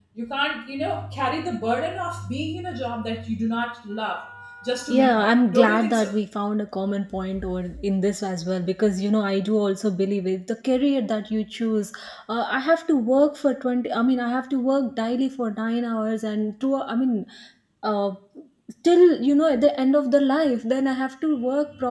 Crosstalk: present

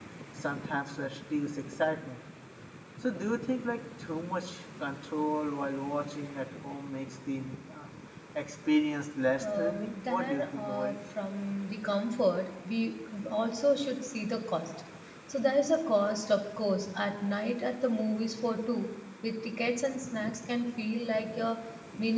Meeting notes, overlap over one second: present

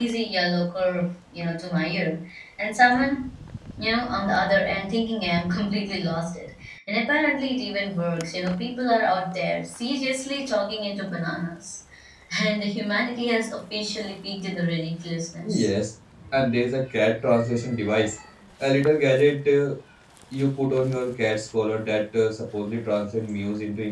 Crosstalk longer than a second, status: none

